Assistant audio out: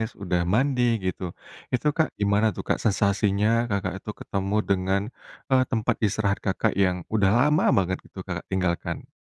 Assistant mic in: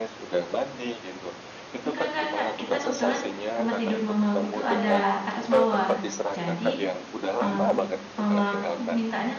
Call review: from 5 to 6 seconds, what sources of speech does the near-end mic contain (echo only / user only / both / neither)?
both